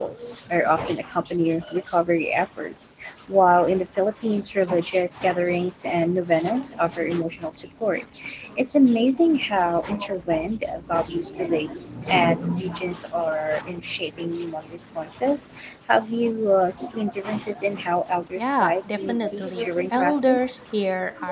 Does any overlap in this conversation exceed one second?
Yes, from 18.4 s

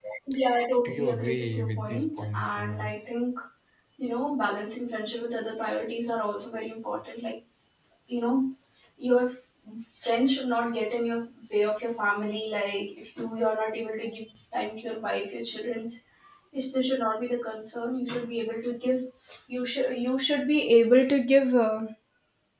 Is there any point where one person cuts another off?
Yes, from 0.8 s

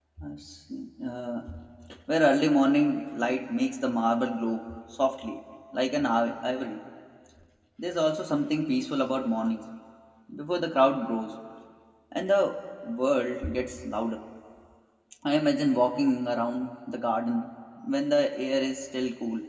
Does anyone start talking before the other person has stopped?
No

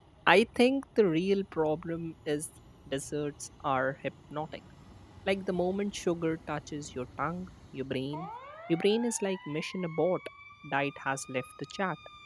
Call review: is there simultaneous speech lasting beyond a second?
No

